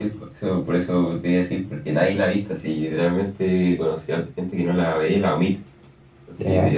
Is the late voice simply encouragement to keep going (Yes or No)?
Yes